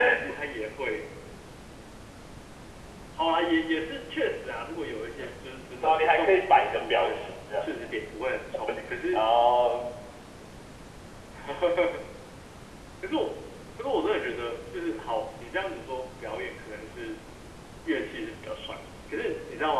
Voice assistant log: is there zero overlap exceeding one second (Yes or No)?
No